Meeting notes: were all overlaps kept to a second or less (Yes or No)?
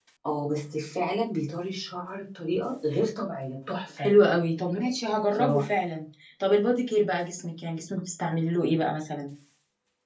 Yes